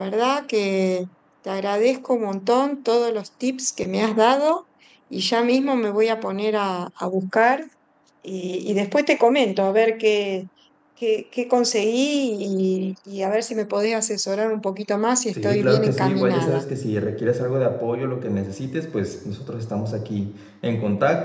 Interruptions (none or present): present